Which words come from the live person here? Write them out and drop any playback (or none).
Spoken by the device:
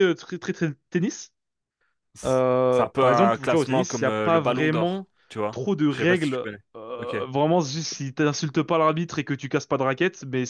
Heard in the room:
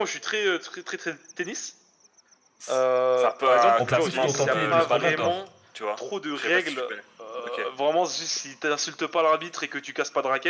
on peut plus se contenter de ce qu'on a, quoi.